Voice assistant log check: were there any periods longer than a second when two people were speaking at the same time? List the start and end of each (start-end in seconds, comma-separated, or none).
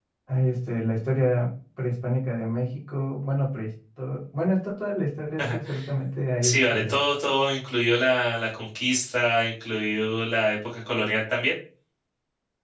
none